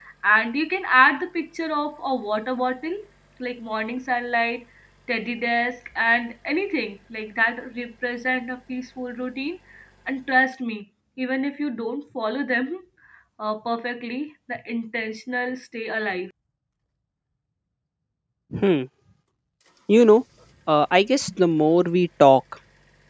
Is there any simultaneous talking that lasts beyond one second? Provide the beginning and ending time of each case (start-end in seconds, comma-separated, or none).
none